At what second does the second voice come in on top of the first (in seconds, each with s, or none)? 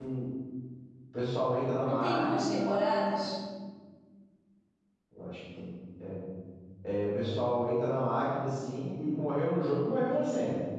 1.8 s